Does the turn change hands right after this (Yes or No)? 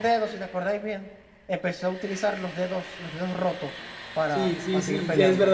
Yes